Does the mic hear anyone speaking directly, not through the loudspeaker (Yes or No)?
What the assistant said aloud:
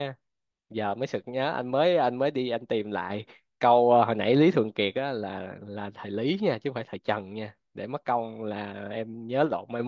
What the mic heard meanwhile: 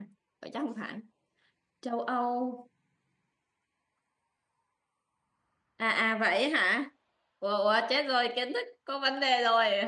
Yes